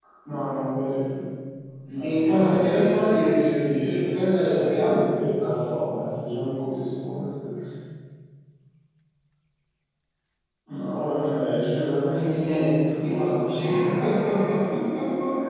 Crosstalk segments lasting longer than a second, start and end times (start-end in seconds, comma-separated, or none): 2.0-4.0, 11.9-13.2